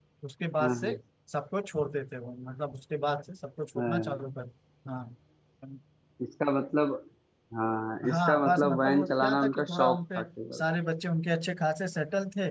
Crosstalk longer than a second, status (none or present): present